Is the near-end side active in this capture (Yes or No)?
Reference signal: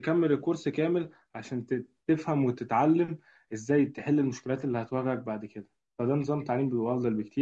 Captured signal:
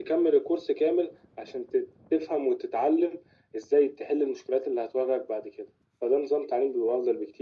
No